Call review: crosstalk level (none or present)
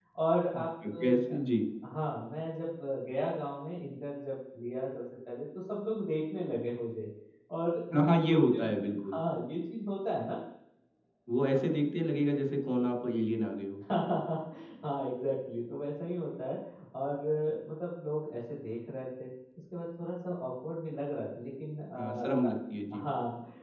present